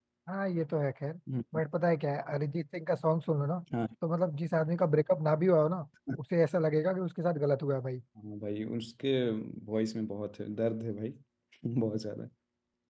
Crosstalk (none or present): none